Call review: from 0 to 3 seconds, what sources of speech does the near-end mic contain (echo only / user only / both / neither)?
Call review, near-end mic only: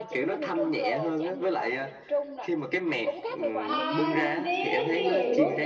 echo only